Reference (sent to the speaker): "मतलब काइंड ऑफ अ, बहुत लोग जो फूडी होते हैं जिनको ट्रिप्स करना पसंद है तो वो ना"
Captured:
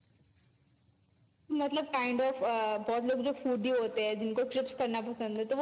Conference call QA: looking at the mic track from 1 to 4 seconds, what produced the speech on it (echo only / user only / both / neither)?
echo only